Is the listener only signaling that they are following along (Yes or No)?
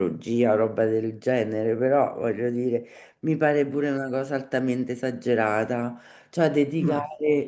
Yes